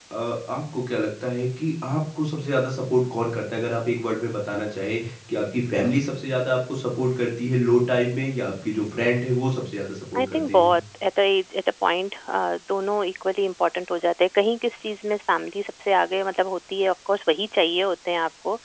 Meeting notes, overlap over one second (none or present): none